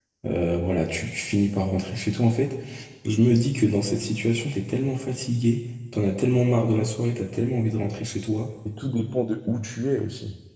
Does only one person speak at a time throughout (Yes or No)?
Yes